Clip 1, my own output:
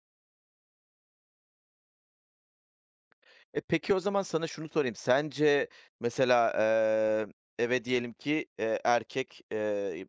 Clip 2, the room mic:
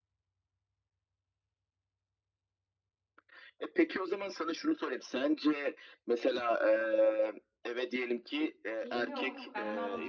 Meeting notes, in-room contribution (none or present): present